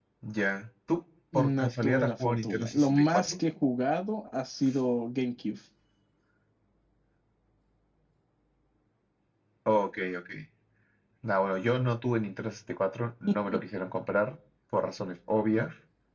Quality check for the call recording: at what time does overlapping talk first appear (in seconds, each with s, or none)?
1.6 s